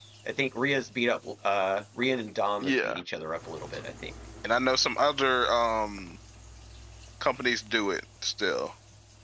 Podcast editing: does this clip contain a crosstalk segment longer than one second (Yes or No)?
No